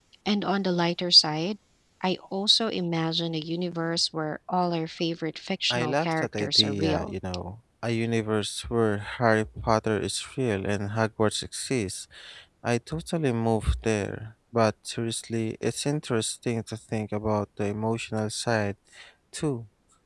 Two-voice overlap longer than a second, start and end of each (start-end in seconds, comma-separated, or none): 5.7-7.1